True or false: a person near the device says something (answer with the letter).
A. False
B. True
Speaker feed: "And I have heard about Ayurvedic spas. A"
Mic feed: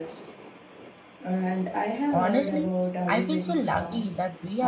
B